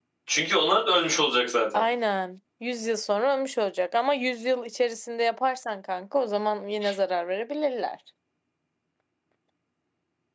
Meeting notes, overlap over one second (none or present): none